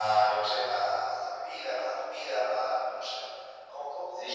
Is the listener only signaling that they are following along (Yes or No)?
No